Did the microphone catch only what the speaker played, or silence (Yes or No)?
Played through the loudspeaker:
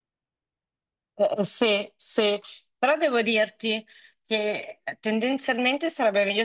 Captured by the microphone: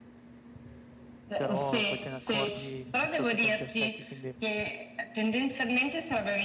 No